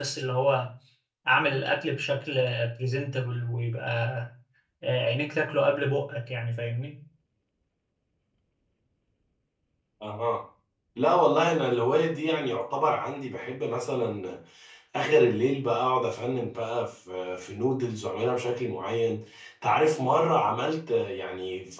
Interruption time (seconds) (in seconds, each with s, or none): none